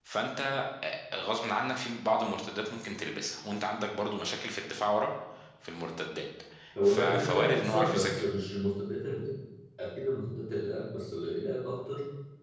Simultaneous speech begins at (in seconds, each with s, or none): 6.8 s